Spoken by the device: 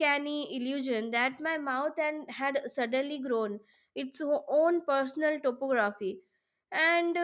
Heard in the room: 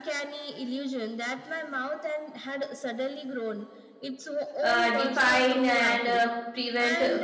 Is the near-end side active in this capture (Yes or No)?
Yes